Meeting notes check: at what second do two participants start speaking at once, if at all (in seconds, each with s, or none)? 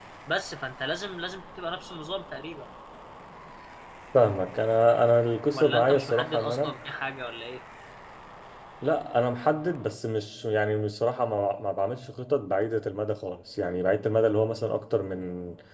5.5 s